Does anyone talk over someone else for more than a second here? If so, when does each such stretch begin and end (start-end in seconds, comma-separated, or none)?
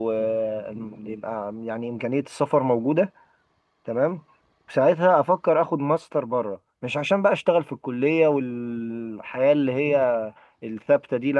none